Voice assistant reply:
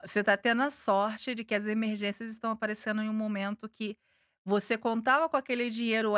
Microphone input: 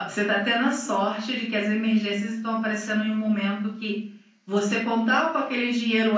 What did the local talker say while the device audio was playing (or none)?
none